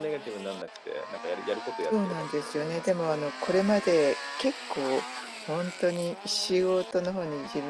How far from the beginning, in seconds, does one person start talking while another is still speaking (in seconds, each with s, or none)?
1.8 s